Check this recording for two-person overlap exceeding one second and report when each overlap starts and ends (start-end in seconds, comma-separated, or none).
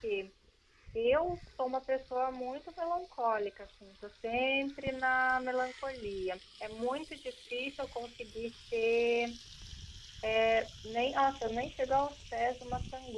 none